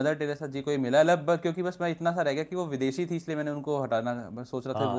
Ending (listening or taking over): taking over